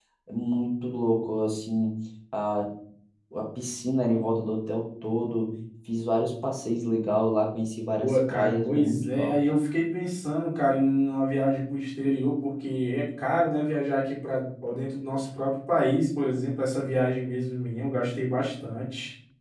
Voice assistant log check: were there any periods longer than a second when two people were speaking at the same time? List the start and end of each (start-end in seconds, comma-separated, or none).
8.0-9.3